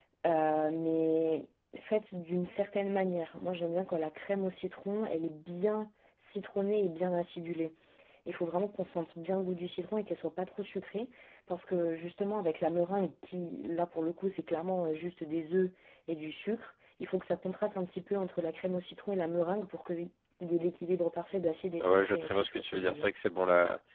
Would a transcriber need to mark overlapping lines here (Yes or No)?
Yes